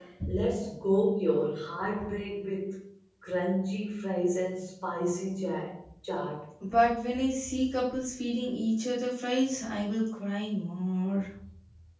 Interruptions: none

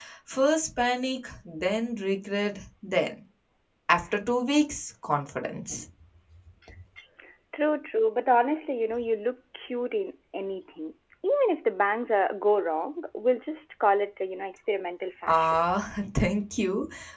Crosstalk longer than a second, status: none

